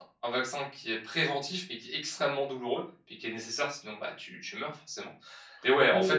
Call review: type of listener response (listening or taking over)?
listening